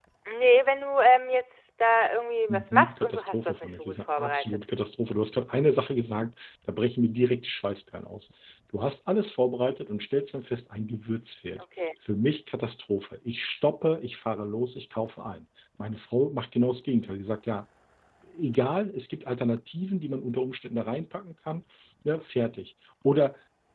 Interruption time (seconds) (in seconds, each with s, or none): 2.5 s